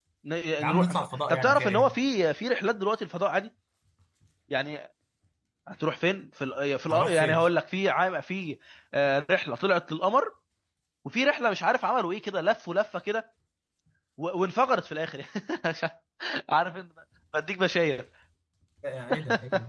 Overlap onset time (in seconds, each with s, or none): 0.6 s